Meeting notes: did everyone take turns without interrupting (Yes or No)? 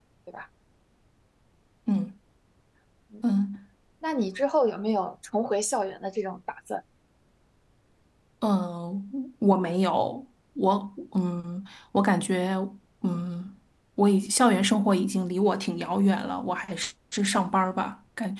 Yes